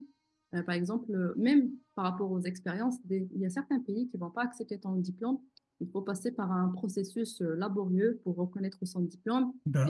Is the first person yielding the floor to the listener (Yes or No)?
No